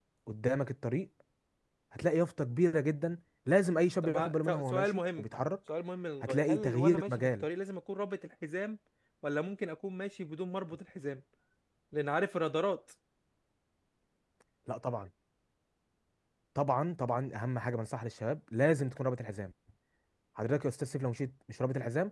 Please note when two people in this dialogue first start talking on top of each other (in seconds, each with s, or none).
4.0 s